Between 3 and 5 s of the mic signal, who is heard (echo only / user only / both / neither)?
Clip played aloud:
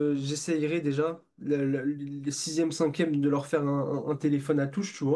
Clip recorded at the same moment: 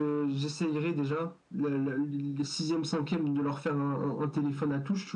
echo only